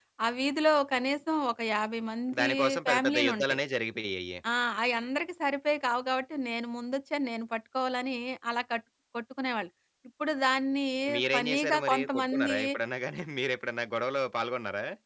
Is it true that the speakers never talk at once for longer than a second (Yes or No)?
No